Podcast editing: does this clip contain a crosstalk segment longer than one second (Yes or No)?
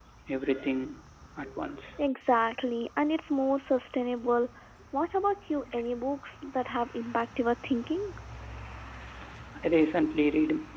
No